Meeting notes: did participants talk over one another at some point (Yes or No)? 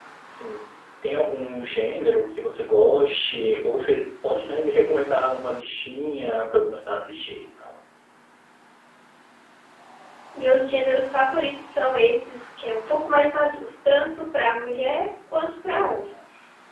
No